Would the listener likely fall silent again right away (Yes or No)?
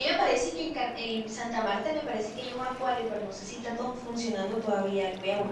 No